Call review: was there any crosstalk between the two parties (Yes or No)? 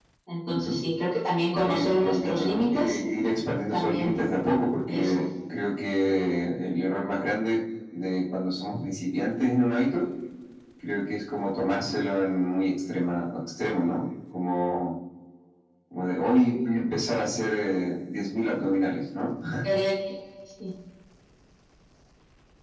Yes